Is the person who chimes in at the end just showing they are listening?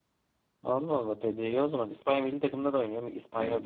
No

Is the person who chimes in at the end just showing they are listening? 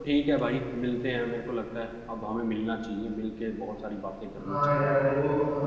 No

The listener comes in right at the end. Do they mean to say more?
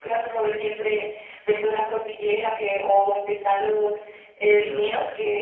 No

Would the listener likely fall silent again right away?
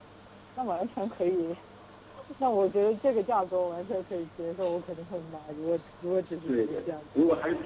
No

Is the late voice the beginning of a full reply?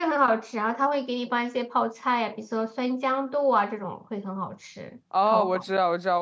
Yes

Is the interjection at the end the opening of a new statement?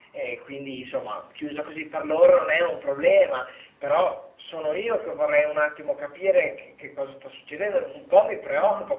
No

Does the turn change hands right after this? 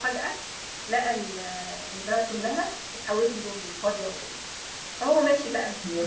No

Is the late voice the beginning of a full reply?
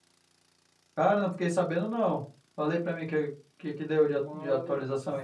Yes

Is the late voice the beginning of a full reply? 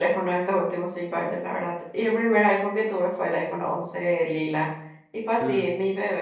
No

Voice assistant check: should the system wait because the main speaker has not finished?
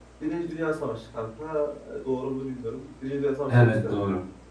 Yes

